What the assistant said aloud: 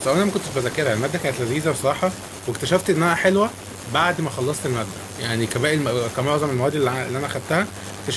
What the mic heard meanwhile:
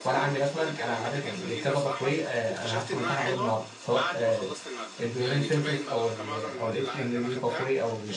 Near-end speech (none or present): present